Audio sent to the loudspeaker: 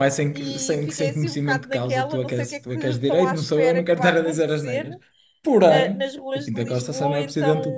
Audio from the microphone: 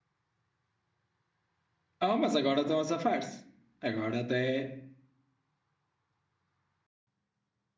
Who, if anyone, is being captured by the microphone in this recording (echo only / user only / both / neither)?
user only